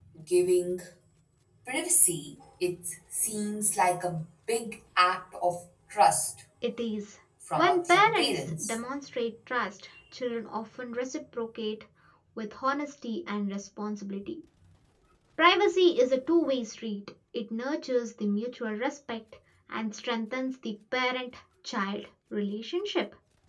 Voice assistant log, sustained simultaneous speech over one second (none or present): present